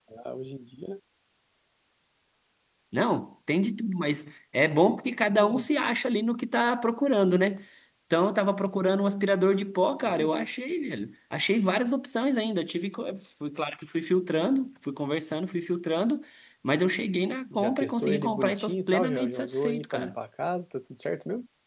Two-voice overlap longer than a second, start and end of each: 17.5-20.2

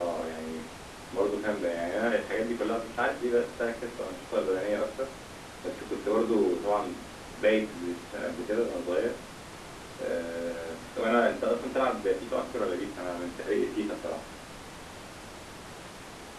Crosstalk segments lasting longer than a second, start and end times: none

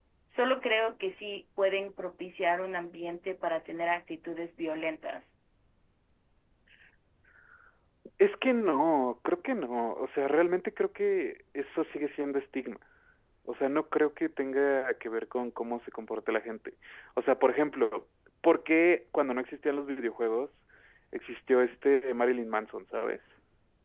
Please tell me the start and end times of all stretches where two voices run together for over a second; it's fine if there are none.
none

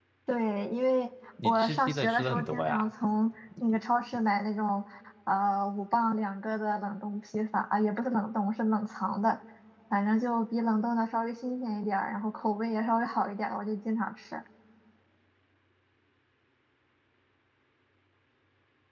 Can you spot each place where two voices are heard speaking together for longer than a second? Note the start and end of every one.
1.4-2.9

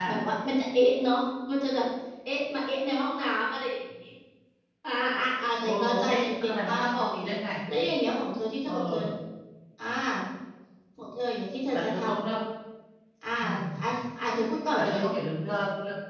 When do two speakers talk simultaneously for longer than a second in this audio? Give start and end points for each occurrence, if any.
5.7-7.3

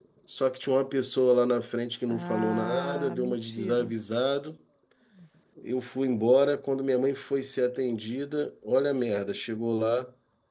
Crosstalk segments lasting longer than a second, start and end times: 2.1-3.9

